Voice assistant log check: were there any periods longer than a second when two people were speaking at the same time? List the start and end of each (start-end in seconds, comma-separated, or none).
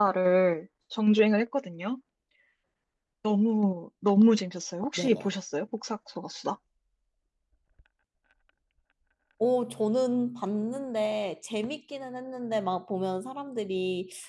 none